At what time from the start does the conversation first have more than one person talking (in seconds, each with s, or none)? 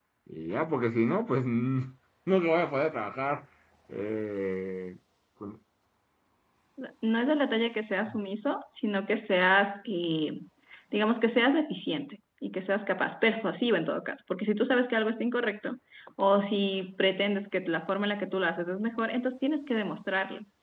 none